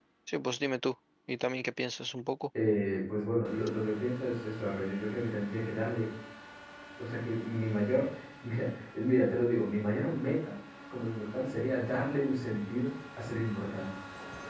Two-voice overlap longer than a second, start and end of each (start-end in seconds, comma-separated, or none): none